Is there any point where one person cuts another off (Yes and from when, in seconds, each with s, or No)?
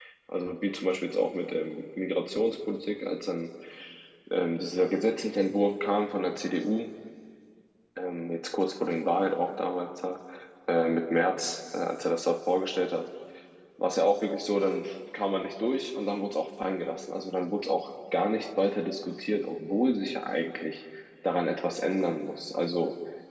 No